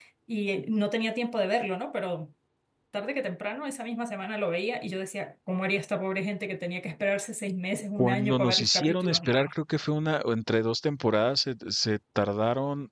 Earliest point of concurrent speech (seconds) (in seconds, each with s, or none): 8.0 s